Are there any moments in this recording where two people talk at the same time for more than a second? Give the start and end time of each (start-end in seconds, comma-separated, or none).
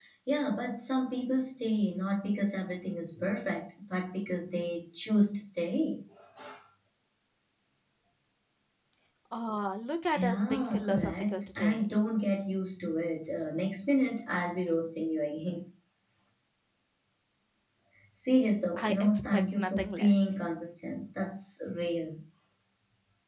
10.1-11.8, 18.8-20.3